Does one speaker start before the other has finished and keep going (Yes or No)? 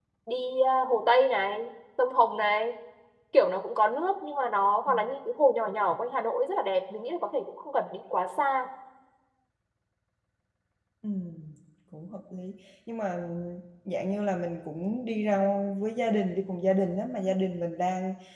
No